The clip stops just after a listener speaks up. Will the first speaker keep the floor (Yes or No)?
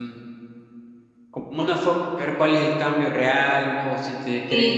No